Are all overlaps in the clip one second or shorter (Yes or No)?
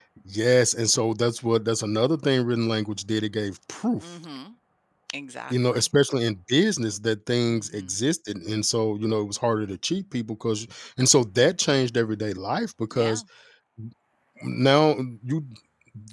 Yes